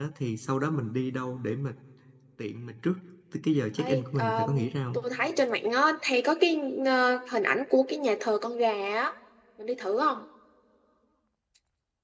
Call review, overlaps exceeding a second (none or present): present